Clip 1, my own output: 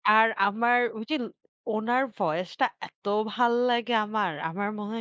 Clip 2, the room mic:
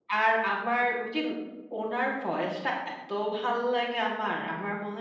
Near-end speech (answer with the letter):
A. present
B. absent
B